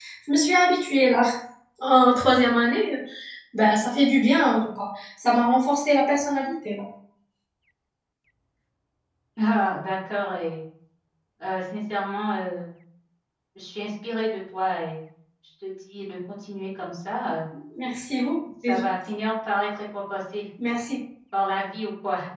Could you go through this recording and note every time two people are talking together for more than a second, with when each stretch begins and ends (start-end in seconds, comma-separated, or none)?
none